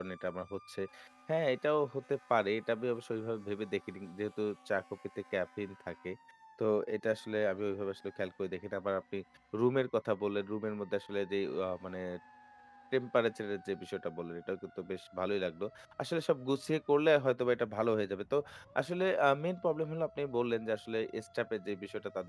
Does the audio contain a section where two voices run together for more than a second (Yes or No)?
No